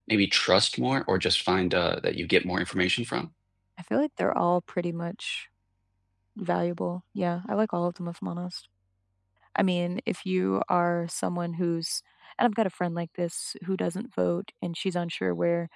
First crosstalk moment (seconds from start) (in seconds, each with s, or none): none